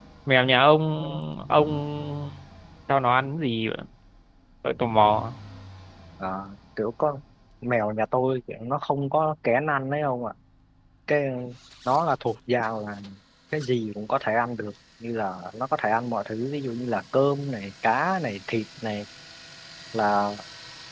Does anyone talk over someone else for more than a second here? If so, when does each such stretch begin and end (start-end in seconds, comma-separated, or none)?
none